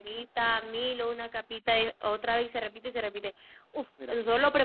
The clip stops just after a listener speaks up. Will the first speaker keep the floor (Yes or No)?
Yes